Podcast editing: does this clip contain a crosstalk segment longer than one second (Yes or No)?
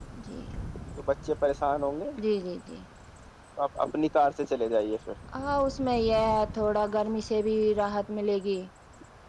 No